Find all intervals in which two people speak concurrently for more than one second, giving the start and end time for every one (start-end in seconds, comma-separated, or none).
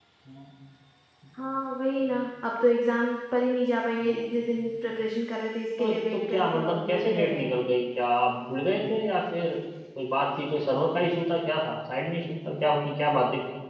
5.8-7.4